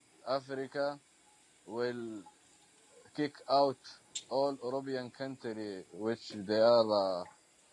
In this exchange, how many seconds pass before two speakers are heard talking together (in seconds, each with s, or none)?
none